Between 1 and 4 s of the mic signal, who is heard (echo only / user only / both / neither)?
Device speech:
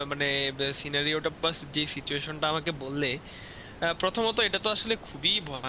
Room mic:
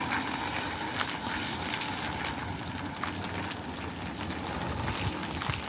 neither